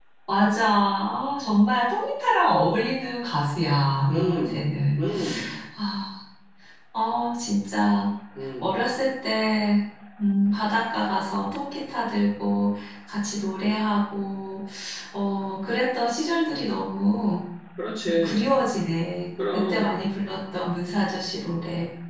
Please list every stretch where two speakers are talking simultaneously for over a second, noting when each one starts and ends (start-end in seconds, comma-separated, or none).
none